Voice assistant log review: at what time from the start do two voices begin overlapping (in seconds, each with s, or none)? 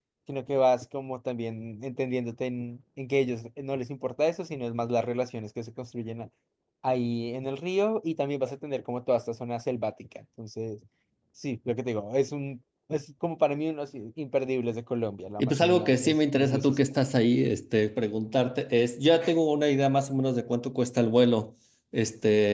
15.4 s